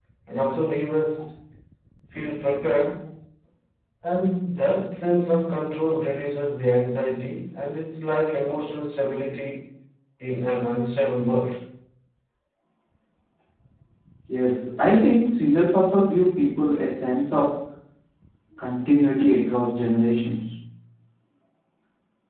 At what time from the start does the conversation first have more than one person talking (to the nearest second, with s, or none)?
none